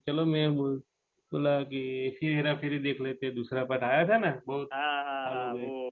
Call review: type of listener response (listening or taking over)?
taking over